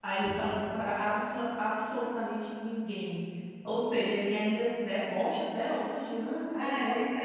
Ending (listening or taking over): taking over